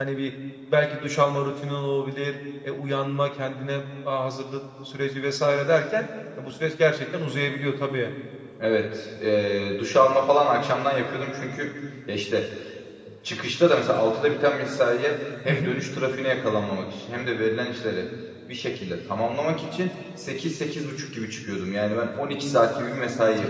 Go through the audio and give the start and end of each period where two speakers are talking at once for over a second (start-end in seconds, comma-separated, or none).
none